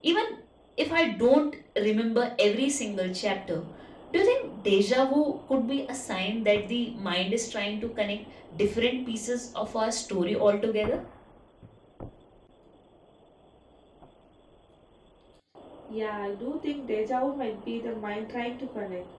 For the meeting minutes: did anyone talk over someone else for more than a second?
No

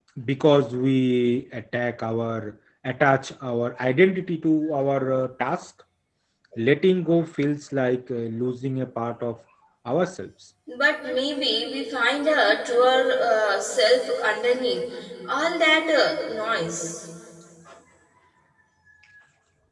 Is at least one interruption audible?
No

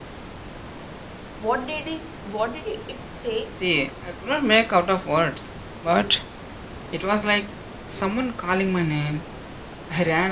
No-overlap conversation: Yes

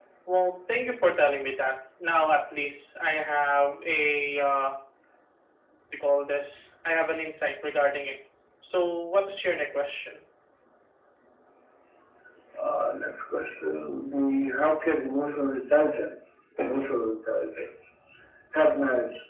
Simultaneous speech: No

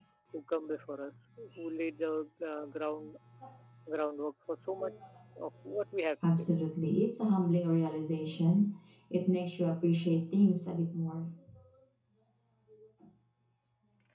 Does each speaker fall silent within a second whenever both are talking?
Yes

